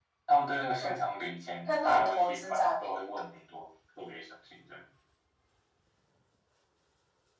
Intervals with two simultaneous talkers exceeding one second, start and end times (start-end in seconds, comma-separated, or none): 1.7-3.0